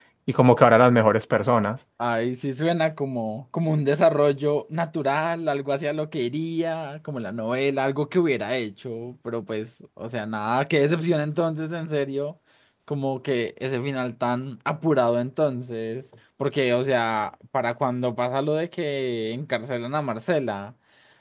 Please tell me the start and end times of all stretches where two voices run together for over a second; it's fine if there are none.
none

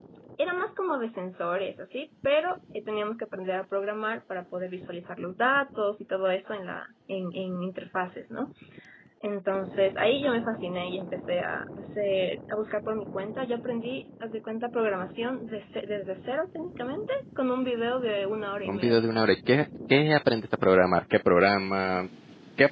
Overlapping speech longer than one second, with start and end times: none

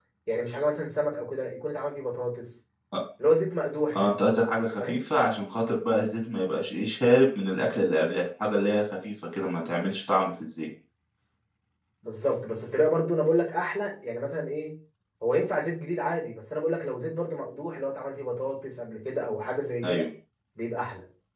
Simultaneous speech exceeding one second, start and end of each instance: none

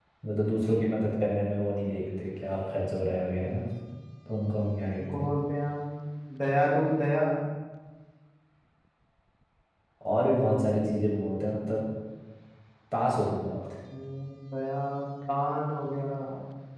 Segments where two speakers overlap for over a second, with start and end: none

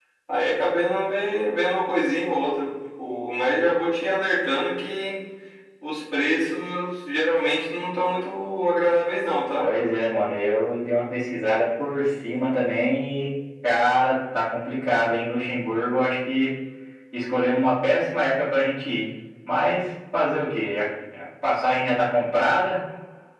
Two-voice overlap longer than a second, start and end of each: none

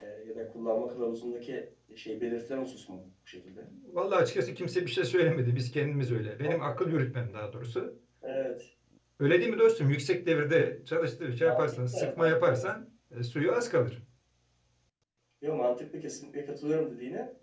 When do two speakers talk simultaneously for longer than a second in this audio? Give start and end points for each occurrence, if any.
11.4-12.7

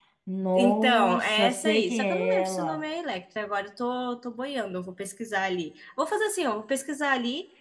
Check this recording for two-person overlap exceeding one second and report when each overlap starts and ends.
0.6-2.8

